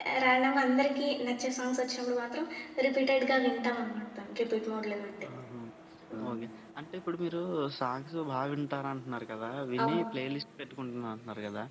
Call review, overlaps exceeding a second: none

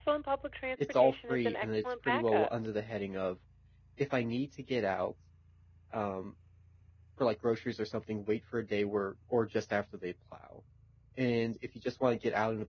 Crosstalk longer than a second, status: present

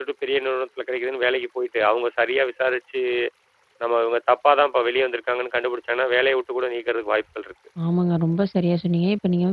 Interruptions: none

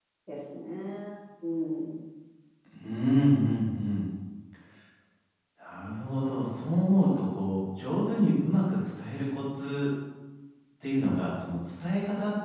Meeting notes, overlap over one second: none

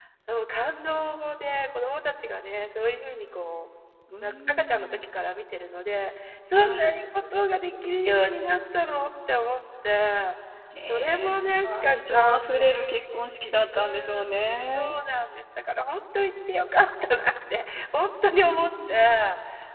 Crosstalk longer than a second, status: present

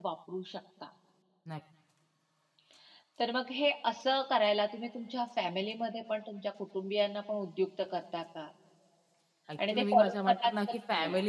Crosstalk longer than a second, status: present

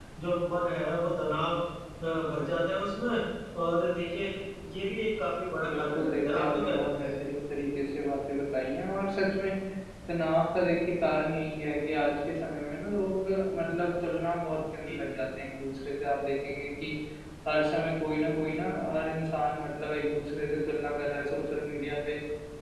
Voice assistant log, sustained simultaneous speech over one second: present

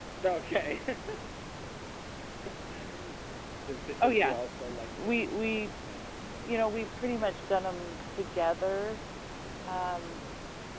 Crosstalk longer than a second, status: present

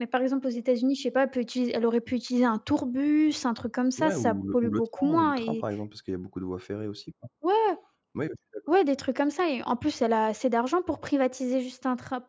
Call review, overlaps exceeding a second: present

